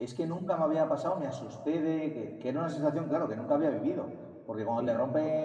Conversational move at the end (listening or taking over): listening